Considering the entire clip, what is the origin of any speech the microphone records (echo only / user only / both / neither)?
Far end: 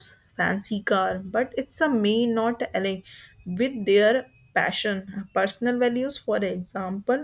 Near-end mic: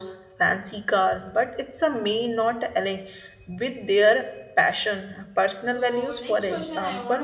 both